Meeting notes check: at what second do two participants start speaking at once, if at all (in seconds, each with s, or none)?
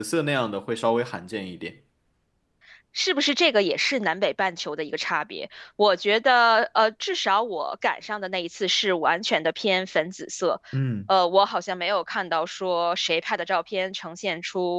none